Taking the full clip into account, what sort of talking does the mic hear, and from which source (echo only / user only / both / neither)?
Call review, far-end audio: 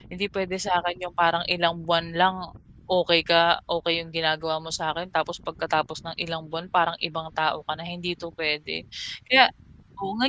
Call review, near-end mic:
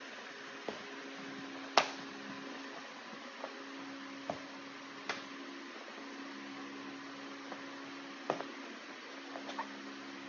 neither